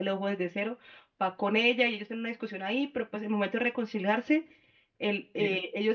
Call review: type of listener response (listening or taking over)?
listening